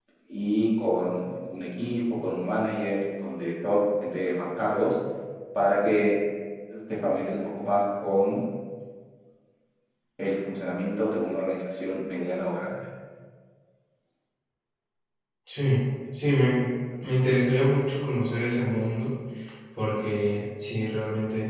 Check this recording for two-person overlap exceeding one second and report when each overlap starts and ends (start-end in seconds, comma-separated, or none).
none